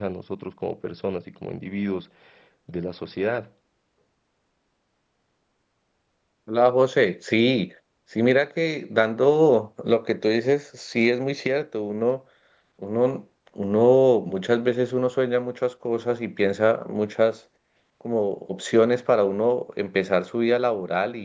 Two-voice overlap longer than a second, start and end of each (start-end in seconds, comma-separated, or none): none